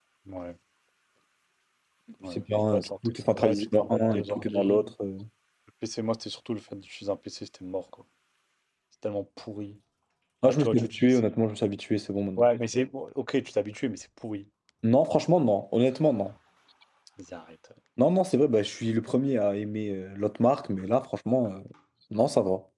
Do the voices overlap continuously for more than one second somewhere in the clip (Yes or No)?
Yes